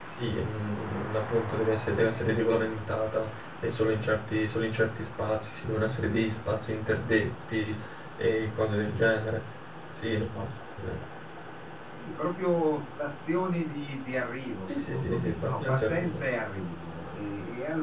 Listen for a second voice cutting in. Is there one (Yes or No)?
Yes